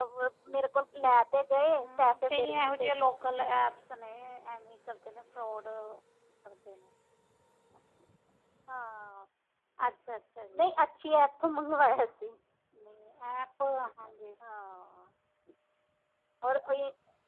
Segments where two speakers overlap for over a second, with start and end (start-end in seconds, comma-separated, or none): 1.7-2.9